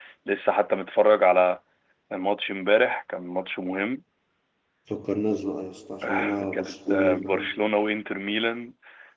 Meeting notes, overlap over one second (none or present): present